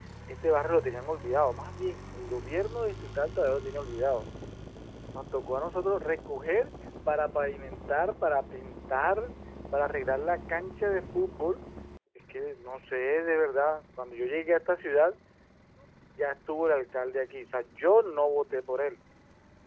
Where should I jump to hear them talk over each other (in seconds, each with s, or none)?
none